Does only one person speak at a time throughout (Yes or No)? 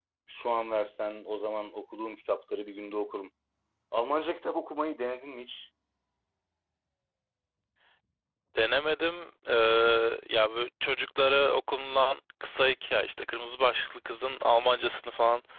Yes